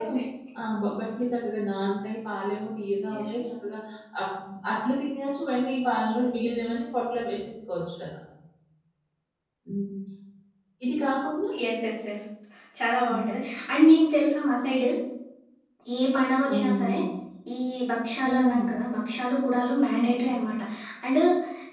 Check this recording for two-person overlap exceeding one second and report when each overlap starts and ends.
none

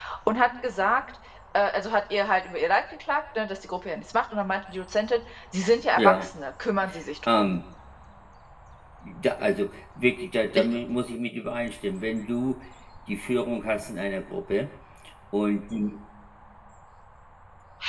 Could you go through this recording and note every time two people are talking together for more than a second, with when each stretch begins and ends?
none

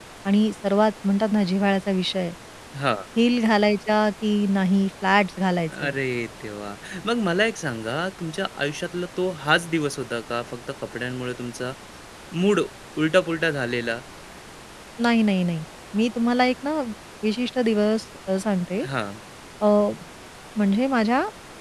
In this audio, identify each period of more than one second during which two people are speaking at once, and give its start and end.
none

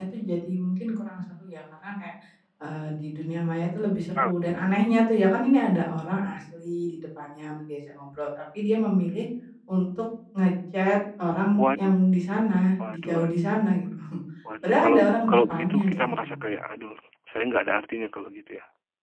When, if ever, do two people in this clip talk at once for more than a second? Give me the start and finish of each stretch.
14.6-16.3

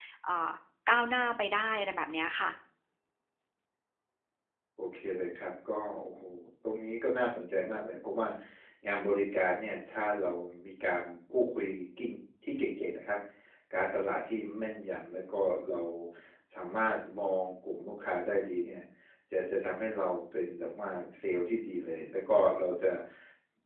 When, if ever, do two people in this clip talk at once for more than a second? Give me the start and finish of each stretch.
none

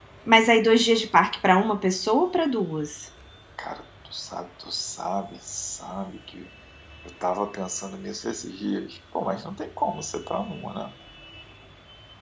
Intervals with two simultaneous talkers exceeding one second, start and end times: none

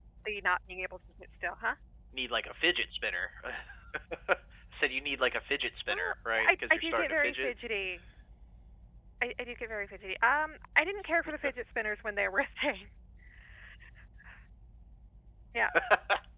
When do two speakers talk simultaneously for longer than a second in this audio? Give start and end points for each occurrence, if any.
5.9-7.5

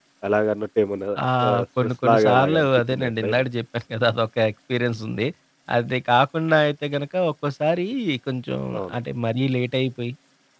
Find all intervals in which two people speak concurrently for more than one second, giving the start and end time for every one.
1.5-3.4

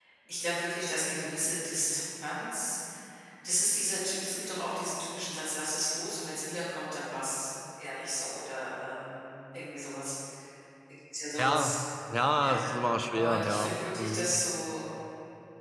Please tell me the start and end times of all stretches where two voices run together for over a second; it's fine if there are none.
13.1-14.3

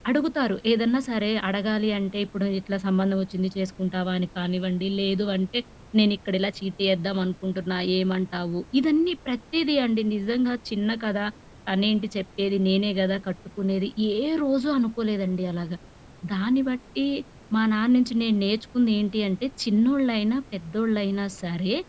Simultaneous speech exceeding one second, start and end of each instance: none

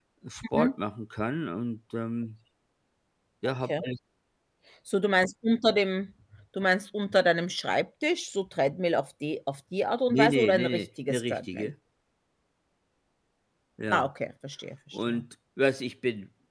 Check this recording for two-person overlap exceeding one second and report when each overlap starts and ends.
10.1-11.7

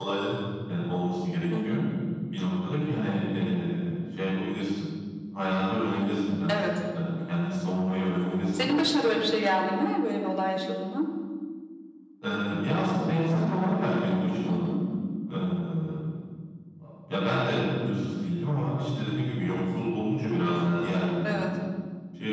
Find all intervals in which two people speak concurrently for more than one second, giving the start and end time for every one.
none

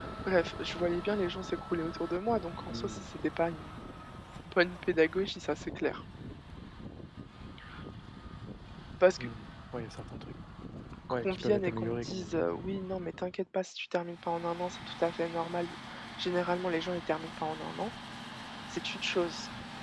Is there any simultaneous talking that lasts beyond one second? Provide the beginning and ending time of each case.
11.1-12.4

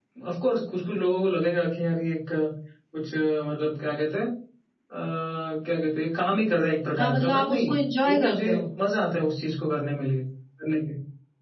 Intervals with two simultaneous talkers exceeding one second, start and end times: 7.0-8.6

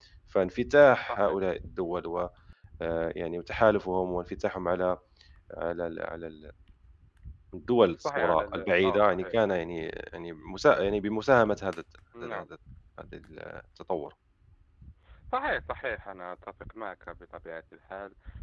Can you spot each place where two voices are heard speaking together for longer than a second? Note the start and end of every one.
8.0-9.3

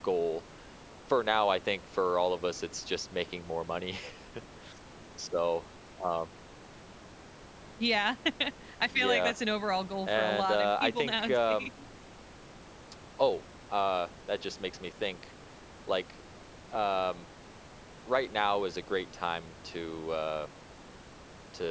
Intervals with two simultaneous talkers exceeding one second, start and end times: 10.1-11.7

